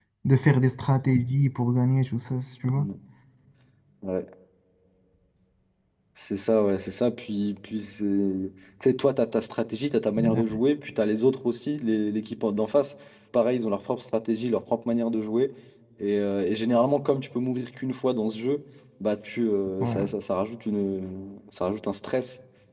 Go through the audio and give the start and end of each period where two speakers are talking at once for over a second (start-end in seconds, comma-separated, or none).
none